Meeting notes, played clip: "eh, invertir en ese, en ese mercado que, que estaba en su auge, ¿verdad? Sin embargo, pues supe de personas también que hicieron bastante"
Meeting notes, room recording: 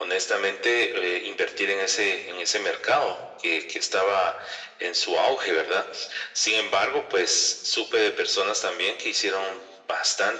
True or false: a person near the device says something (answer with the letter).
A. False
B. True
A